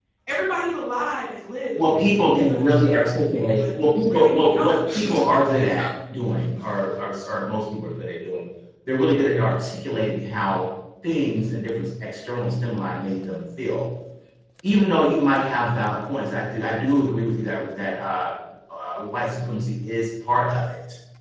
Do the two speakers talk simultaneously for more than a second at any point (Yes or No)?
Yes